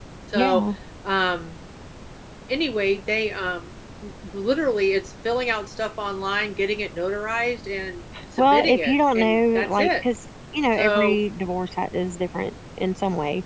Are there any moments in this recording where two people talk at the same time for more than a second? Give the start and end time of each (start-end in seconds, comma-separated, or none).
8.4-10.0